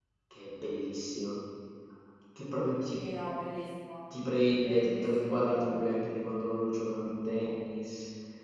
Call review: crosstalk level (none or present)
present